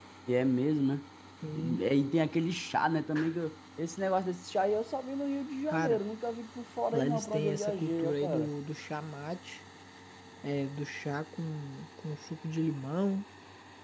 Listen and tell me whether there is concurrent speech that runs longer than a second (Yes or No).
Yes